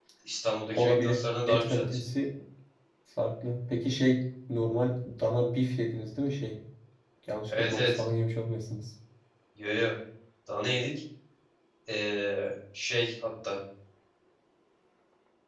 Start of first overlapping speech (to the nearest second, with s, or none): 1 s